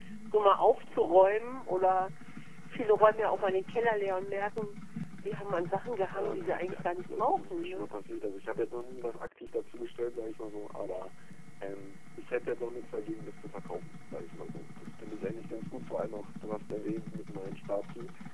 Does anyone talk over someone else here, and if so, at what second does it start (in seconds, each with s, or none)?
6.1 s